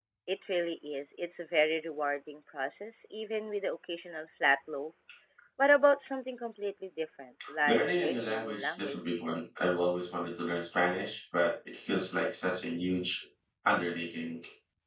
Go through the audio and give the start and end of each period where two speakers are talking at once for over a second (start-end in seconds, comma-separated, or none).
7.7-9.2